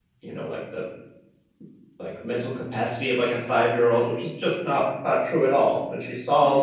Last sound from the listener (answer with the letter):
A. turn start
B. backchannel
B